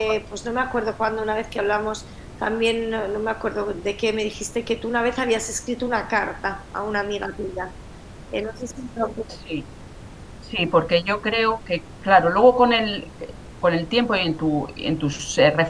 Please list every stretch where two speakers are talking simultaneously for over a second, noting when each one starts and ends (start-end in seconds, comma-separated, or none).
none